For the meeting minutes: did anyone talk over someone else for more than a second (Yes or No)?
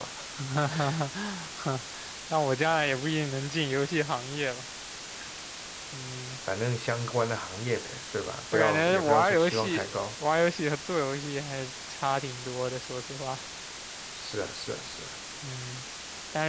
Yes